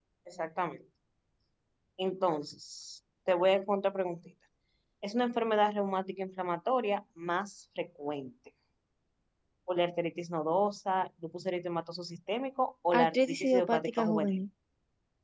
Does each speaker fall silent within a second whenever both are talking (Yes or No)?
No